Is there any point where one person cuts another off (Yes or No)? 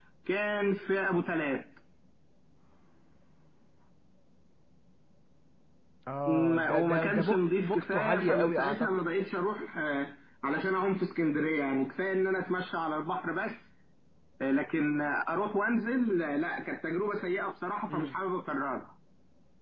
Yes